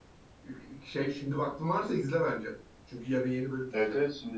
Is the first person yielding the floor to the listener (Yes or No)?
Yes